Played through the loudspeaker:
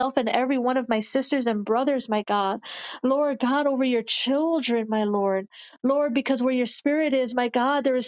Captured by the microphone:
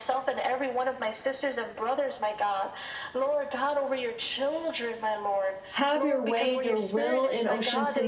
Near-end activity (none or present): present